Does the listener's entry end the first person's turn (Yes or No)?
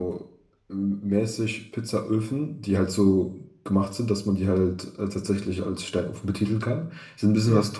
No